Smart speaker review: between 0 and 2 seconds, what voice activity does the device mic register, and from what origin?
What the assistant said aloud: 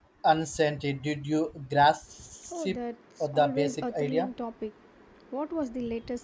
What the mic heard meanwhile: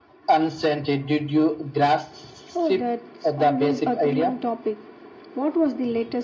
echo only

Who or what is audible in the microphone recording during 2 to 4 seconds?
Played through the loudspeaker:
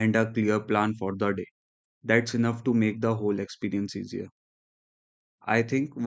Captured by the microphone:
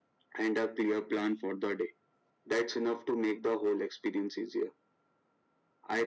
echo only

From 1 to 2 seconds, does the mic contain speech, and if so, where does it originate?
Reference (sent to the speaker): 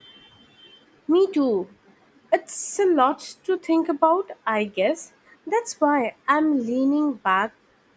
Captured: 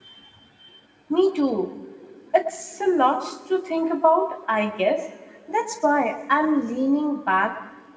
echo only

